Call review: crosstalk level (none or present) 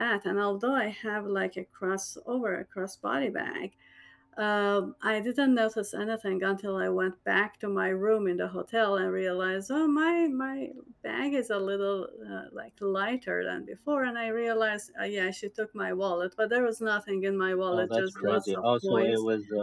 present